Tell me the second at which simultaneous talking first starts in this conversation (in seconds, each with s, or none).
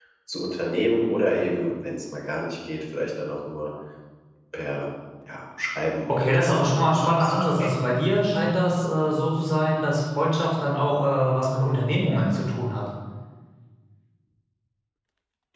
6.1 s